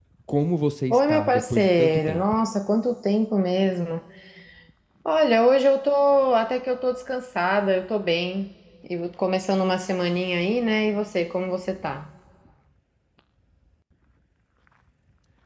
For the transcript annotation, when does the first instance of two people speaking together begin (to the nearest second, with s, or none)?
1 s